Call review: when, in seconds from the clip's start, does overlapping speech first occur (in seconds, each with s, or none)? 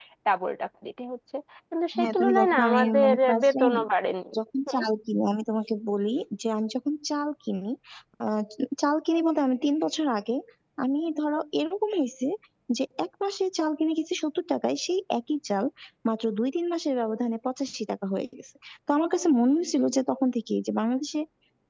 2.0 s